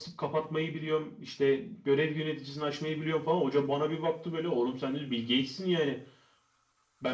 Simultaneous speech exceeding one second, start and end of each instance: none

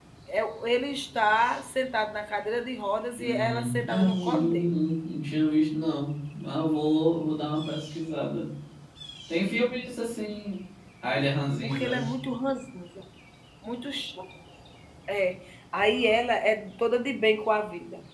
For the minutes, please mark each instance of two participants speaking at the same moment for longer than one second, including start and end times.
3.2-4.8

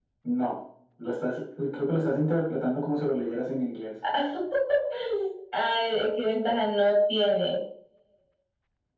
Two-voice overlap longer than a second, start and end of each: none

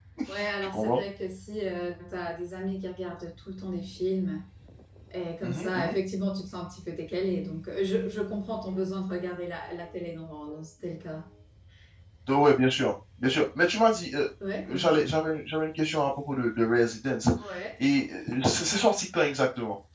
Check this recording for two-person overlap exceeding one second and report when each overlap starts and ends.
none

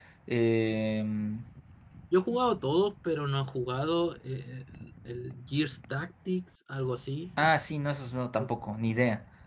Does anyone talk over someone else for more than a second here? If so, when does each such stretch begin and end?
none

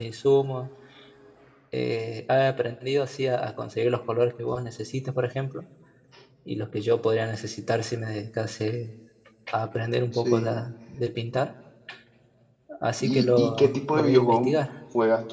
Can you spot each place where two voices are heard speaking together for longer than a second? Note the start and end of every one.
13.0-14.5

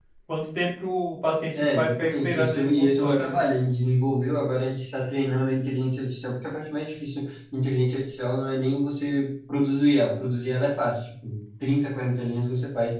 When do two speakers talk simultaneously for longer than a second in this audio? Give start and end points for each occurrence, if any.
1.6-3.4

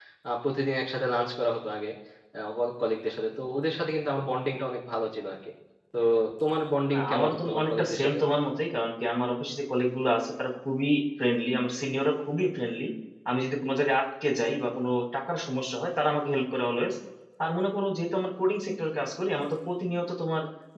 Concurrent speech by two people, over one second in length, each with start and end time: 6.9-8.2

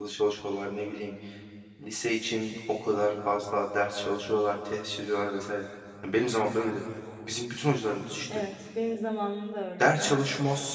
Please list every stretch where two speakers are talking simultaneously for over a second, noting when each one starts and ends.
none

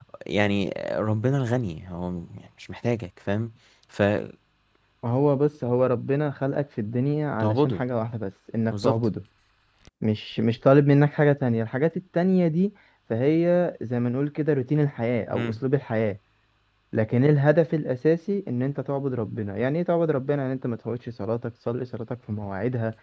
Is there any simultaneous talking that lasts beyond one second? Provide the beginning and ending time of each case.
none

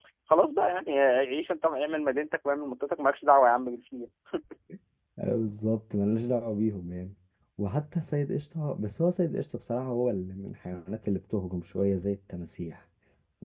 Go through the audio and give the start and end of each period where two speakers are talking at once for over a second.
none

